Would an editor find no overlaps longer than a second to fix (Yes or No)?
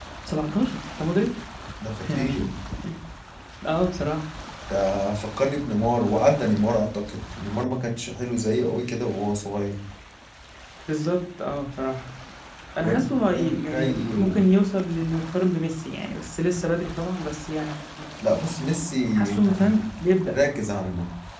No